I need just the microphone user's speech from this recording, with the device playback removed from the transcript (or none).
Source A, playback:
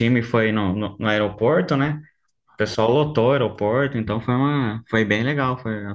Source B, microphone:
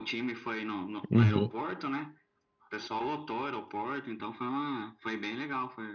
Uhum.